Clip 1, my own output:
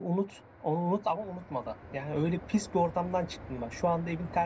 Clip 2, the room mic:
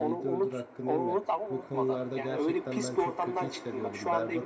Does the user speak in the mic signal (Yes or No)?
Yes